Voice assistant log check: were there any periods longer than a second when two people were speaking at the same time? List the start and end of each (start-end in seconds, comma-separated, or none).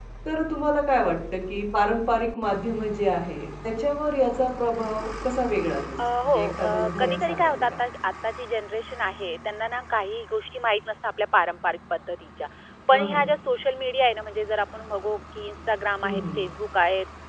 6.2-7.6